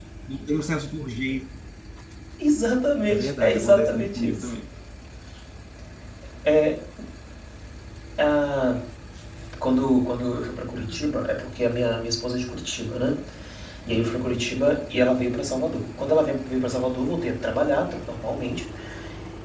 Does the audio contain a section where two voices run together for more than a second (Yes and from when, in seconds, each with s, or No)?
Yes, from 3.1 s